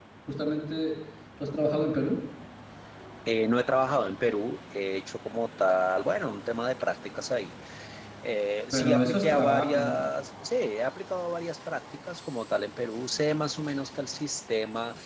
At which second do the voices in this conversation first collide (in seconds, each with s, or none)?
8.7 s